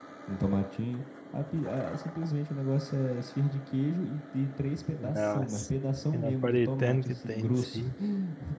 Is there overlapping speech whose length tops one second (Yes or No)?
Yes